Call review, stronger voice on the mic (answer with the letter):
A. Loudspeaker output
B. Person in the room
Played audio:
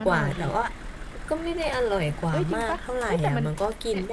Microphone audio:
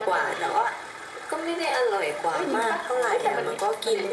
A